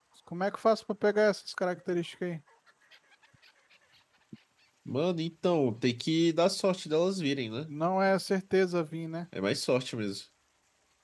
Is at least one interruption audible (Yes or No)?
No